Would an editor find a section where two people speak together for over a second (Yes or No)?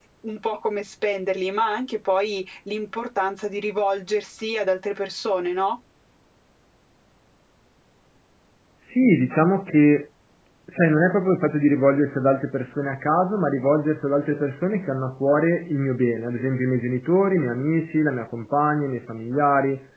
No